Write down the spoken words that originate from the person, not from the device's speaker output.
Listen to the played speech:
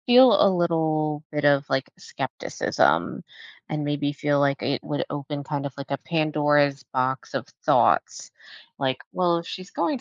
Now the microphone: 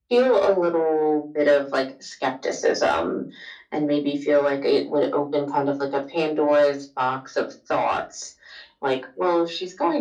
none

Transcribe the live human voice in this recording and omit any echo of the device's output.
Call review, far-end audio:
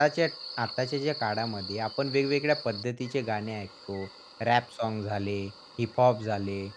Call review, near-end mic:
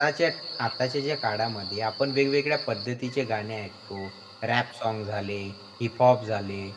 none

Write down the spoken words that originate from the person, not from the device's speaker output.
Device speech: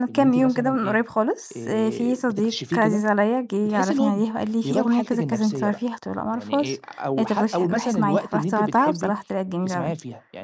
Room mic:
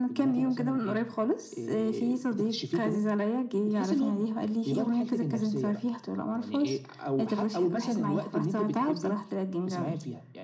none

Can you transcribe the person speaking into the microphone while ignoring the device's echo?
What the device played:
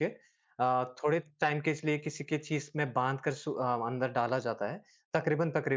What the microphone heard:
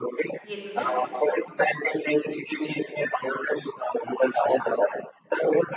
ये तो है।

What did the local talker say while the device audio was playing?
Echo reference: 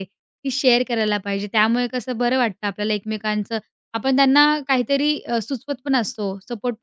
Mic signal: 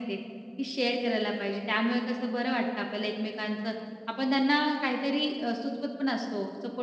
none

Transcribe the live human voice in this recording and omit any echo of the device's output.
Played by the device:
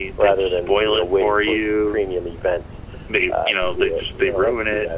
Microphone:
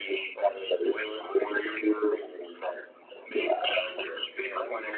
none

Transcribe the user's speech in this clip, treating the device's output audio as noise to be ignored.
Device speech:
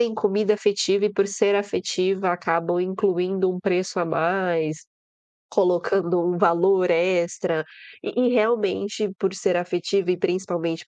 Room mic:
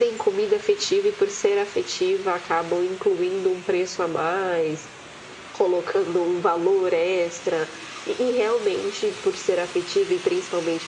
none

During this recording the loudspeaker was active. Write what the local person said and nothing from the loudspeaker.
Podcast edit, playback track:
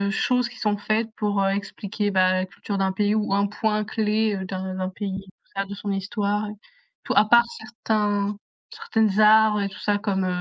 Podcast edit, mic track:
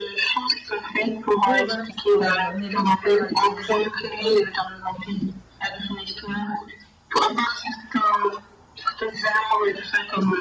Oui, voilà, quand un élève part à l'étranger, ouais.

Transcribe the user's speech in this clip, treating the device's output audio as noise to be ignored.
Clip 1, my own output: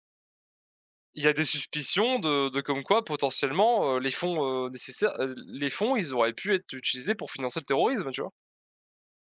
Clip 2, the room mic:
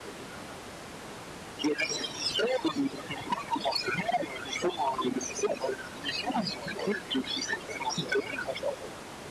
none

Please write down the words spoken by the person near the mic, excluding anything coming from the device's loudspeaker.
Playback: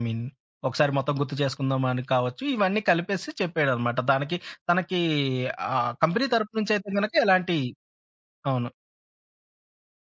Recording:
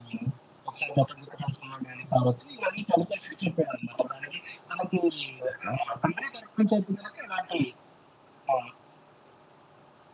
none

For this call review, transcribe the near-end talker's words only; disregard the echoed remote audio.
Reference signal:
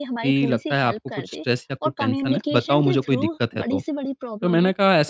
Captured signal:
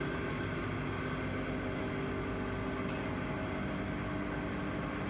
none

